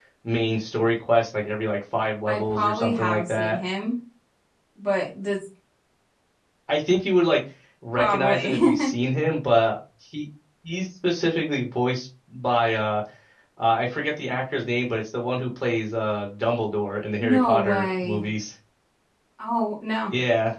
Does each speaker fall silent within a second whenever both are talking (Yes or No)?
No